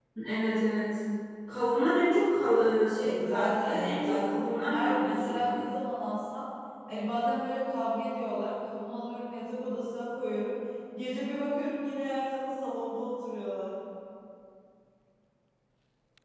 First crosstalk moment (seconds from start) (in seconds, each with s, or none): 3.0 s